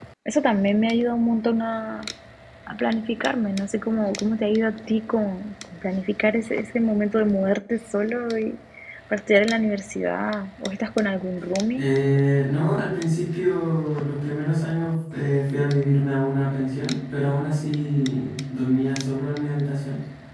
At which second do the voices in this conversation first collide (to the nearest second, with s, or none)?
none